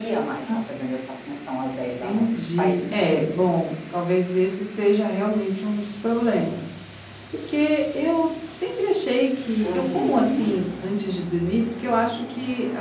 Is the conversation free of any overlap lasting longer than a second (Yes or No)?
No